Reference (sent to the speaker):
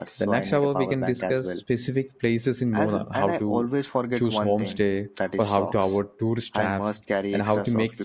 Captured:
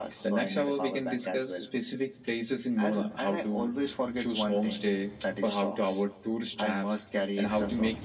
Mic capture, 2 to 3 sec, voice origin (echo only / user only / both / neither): echo only